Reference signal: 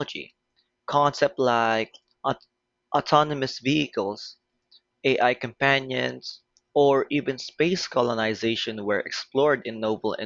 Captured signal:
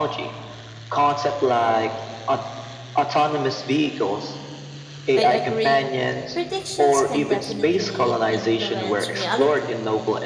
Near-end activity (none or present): present